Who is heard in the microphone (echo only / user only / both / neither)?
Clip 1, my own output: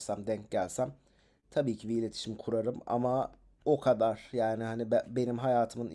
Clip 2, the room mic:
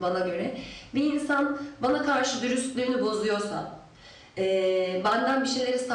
user only